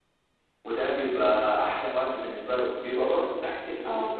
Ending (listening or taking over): listening